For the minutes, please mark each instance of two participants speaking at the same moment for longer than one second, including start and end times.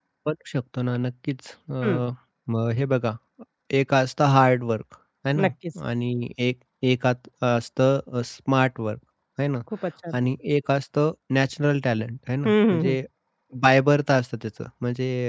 none

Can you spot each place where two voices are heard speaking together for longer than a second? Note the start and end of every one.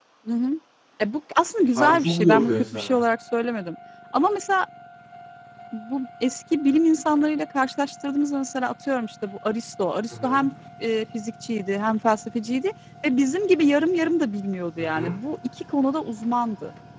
1.8-3.0

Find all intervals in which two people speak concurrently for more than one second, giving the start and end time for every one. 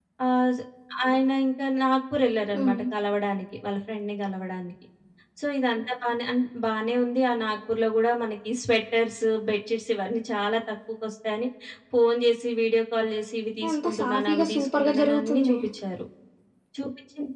13.7-15.6

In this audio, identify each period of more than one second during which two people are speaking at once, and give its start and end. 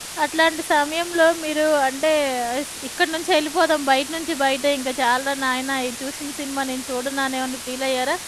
none

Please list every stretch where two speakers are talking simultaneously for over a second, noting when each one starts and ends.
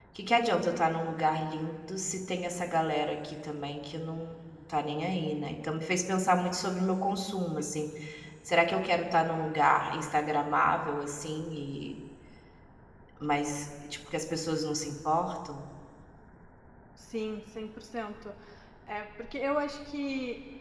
none

